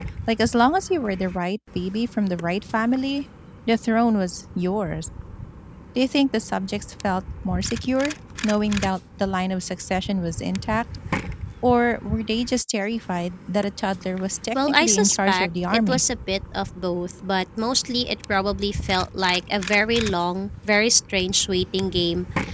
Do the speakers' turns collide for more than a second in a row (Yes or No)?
Yes